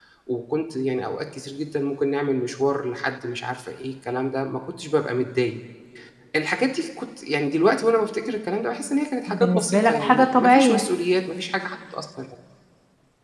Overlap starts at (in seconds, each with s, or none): 9.3 s